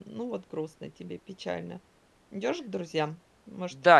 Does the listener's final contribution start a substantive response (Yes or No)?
Yes